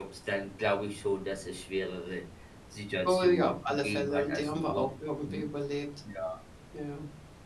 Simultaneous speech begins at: 3.1 s

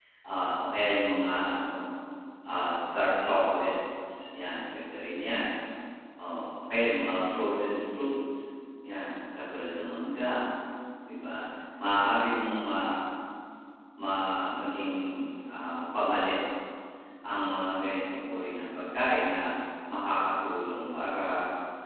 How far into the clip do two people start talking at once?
none

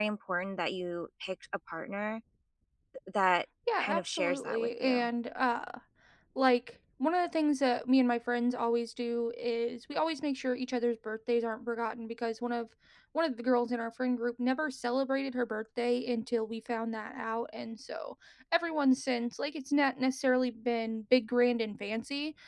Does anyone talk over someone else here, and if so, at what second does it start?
3.8 s

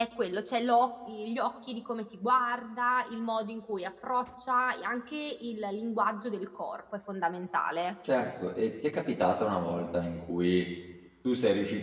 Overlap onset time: none

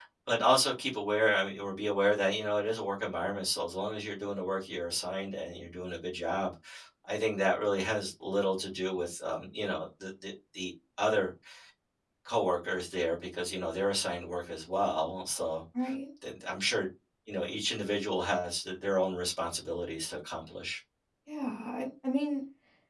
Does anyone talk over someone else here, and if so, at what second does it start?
none

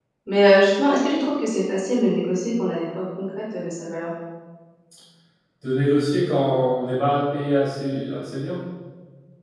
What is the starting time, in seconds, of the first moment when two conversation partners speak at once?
none

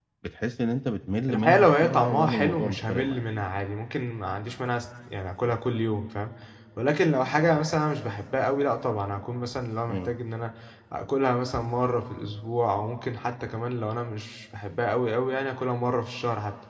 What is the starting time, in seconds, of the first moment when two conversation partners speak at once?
1.3 s

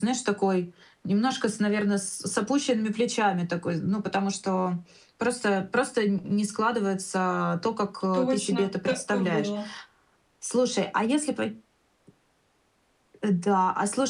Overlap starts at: 8.1 s

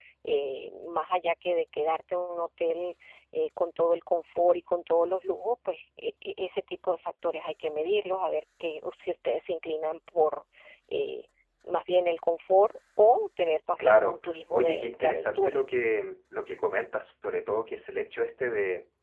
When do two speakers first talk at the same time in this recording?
13.8 s

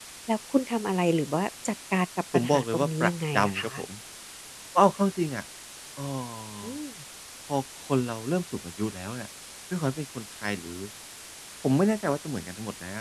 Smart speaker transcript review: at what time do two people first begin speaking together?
2.3 s

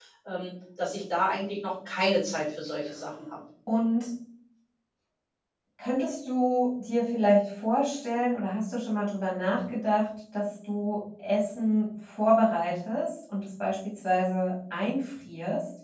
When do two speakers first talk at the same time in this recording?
none

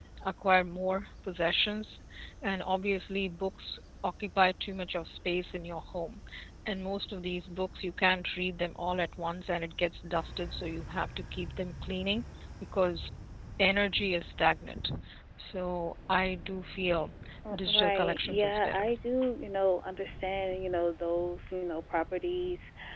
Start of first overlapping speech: 17.5 s

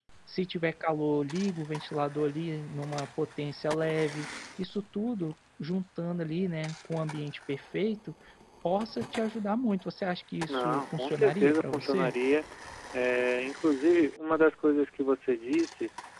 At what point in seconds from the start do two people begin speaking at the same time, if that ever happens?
10.5 s

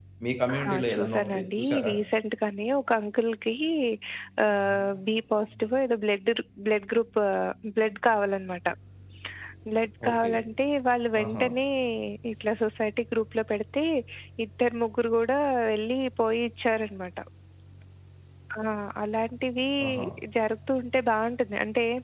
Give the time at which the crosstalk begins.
0.7 s

